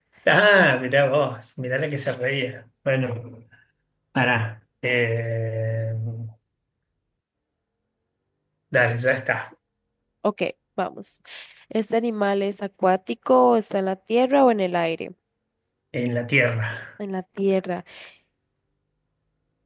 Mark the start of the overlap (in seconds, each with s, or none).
none